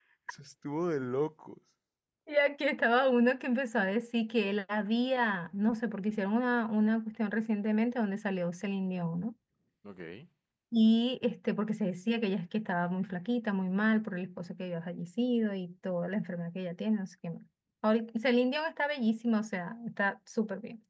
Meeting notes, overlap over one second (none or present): none